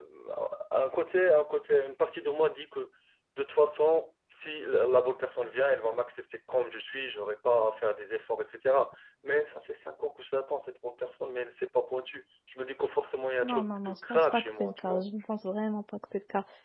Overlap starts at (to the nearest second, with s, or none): 13 s